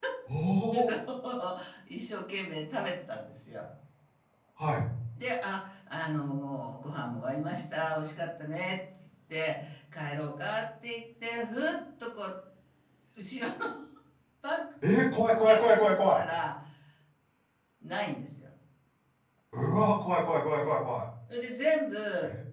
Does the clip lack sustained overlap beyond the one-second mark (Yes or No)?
Yes